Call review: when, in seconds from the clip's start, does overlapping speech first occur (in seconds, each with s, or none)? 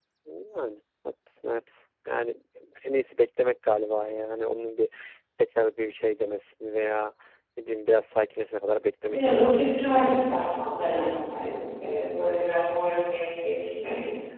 9.1 s